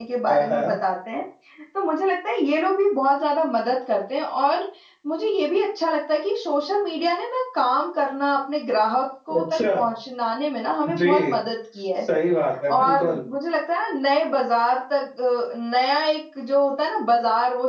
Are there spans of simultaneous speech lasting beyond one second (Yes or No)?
No